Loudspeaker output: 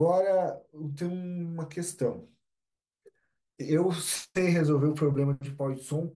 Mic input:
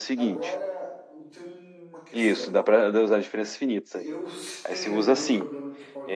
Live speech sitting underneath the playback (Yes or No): No